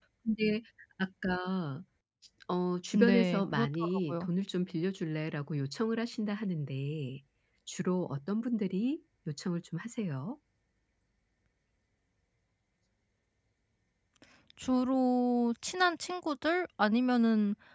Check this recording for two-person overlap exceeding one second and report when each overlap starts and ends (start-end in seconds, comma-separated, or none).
3.0-4.3